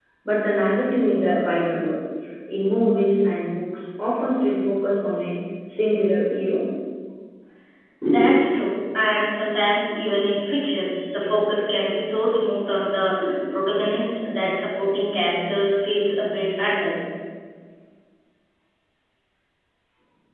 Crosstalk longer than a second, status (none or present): none